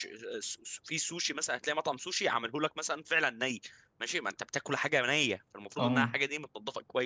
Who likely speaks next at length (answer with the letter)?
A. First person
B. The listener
A